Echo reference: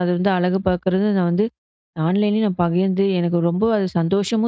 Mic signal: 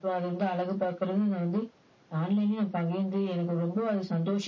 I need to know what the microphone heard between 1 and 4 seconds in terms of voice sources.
echo only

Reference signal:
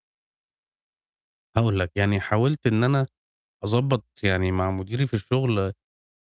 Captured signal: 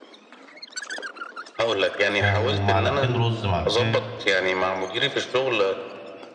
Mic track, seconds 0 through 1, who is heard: neither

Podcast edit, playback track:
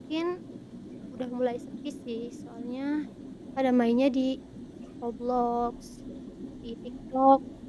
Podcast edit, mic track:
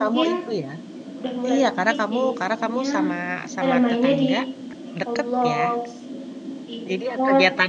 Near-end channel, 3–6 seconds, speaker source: both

